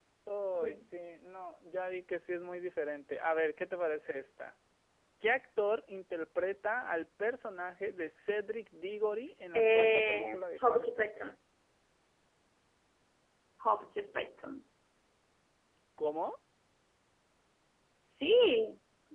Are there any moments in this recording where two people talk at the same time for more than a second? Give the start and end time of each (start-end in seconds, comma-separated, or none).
9.6-11.3